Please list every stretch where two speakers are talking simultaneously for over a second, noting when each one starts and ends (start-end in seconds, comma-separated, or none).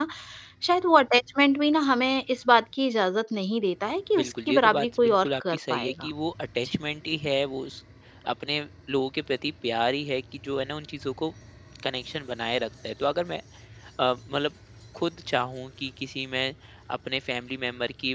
4.2-6.1